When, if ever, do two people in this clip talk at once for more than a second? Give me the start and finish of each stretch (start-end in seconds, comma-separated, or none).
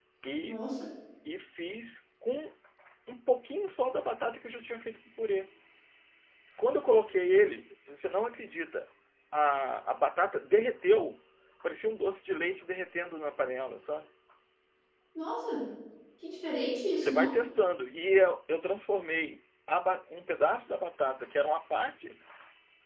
none